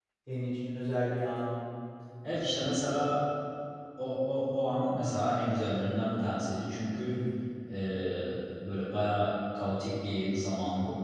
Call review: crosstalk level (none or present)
none